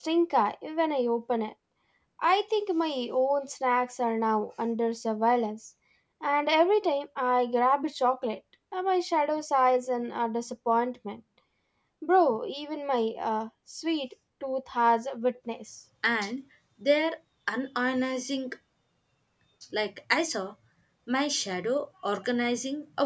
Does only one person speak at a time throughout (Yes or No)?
Yes